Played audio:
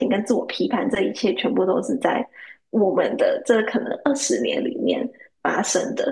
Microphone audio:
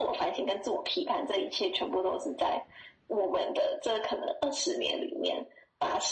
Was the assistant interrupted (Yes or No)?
No